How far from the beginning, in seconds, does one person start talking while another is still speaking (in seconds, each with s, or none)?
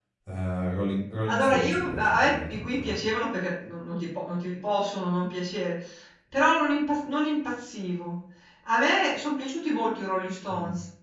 1.3 s